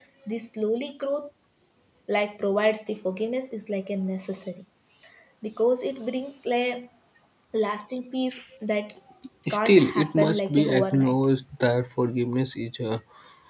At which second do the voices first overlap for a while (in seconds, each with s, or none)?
9.5 s